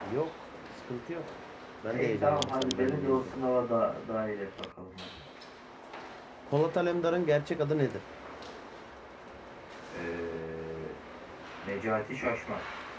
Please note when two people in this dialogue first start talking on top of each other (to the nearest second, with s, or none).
2 s